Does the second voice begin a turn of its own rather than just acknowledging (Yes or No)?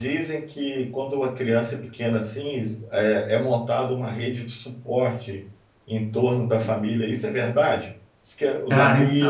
No